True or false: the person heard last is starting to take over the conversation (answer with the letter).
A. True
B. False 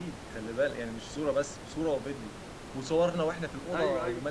B